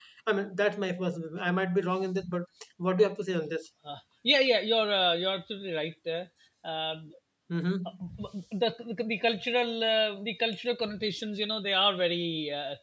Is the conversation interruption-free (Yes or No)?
Yes